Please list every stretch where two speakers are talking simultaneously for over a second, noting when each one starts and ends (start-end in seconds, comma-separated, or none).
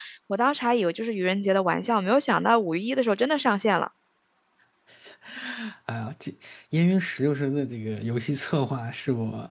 none